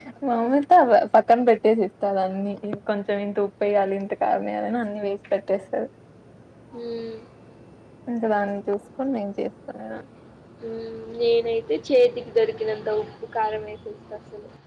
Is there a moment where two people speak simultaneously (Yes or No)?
No